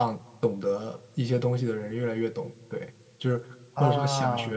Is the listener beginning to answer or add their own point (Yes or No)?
No